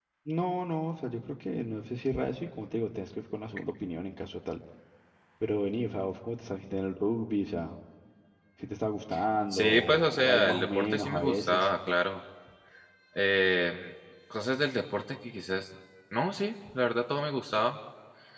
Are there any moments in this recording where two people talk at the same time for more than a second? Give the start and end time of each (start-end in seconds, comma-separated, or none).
9.5-11.7